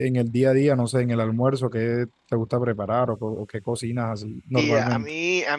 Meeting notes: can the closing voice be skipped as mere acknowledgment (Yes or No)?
No